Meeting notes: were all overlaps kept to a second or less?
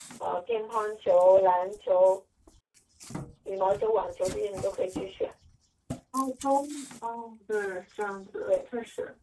Yes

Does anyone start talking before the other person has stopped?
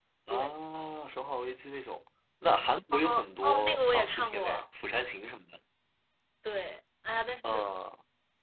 Yes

